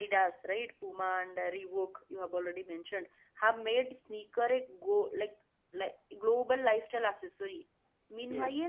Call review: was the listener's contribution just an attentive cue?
Yes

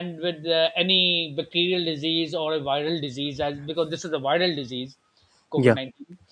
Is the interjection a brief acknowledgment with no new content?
Yes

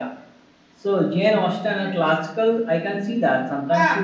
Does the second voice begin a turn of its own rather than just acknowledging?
No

